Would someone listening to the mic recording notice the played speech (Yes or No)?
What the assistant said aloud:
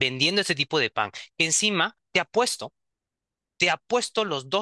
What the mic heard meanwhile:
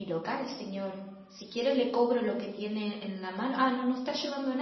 No